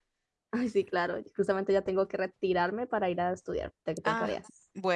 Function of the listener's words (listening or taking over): taking over